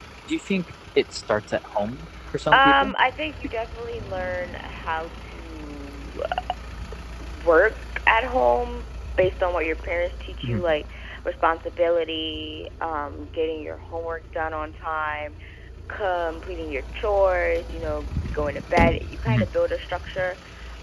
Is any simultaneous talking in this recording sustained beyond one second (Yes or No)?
No